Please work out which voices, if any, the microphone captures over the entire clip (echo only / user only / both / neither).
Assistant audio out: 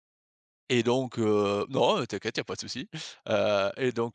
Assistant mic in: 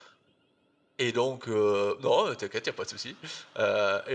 echo only